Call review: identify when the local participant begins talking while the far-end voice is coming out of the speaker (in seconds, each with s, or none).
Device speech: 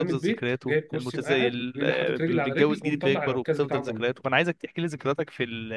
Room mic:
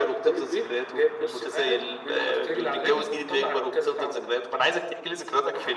none